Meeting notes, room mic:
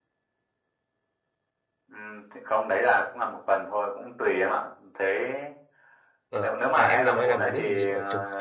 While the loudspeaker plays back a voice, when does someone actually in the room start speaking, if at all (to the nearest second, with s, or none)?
6 s